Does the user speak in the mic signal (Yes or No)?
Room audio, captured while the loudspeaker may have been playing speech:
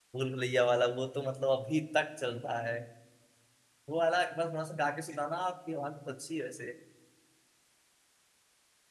Yes